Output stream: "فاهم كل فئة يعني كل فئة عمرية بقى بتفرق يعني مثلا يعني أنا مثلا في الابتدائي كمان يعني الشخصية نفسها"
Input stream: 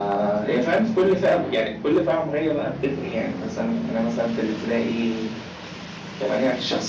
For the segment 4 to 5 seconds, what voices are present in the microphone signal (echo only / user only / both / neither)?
echo only